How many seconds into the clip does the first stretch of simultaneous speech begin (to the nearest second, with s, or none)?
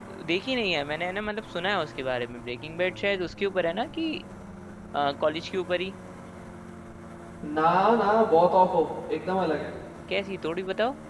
none